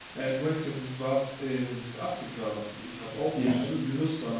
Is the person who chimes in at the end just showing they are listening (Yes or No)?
Yes